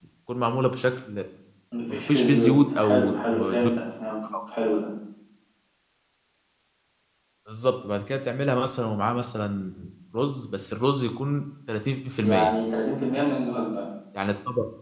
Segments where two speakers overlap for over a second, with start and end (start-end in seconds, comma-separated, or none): 1.9-3.7